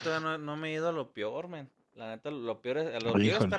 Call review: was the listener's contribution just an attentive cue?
Yes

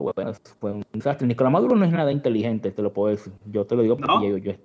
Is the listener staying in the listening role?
Yes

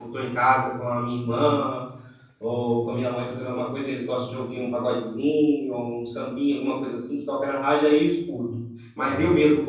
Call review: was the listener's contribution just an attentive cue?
Yes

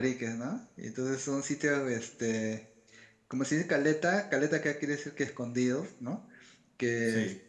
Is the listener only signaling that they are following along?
Yes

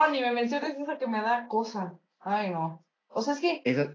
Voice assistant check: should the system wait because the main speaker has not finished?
Yes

